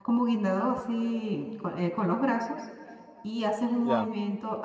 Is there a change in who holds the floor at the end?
No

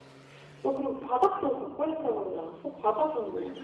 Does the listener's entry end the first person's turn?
Yes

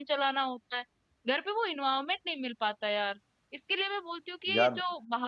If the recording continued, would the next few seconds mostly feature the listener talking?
No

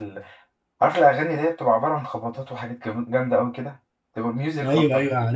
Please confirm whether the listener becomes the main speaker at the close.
Yes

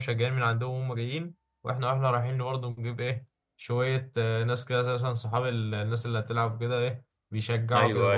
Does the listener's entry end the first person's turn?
Yes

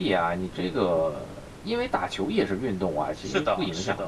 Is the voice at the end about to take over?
Yes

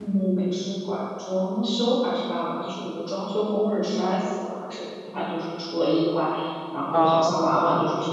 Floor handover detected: No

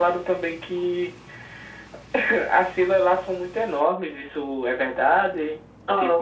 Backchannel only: No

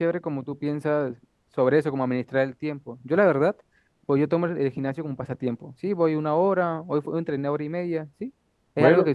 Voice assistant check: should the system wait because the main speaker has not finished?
Yes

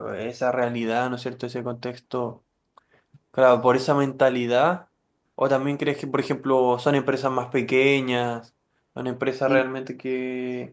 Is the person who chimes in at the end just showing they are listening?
Yes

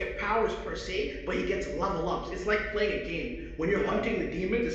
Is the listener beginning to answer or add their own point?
No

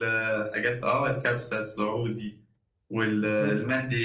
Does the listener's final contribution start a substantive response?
No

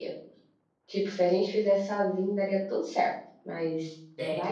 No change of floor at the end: No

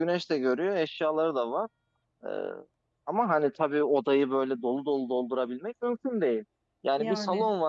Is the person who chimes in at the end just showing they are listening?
Yes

